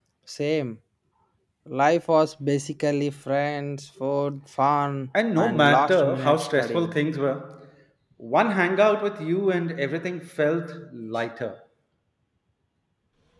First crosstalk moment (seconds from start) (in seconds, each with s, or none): 5.1 s